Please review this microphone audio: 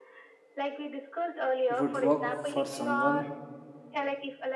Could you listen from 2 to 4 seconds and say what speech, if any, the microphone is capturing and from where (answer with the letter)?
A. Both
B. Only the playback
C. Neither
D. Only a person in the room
A